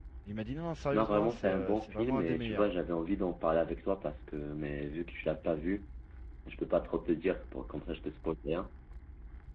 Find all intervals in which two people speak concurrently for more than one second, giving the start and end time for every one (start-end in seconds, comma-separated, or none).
0.9-2.6